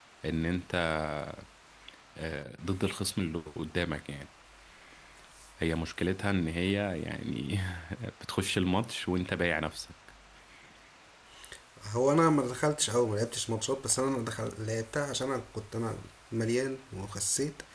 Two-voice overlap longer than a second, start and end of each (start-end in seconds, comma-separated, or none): none